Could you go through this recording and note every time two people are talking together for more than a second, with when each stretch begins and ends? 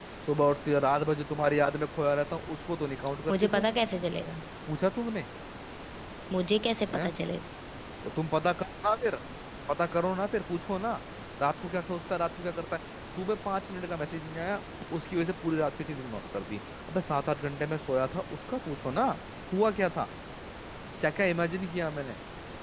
none

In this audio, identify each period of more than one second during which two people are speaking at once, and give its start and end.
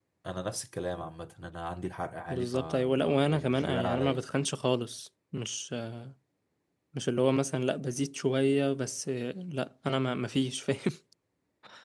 2.3-4.2

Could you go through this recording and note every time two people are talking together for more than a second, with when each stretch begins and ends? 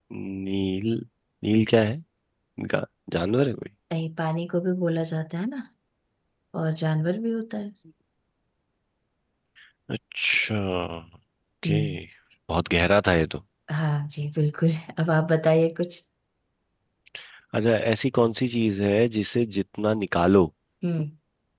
none

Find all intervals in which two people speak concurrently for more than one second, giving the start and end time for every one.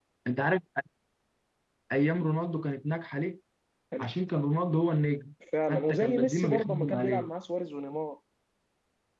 5.7-7.3

